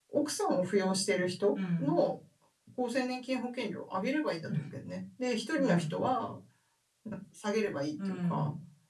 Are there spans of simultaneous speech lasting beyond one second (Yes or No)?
No